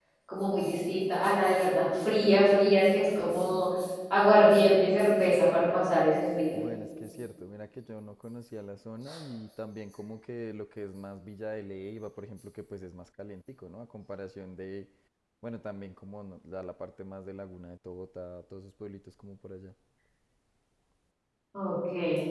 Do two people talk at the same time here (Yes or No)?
No